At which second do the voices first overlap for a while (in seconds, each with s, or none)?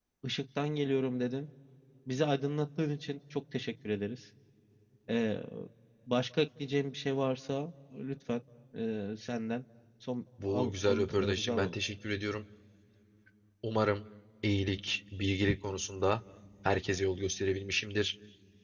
10.4 s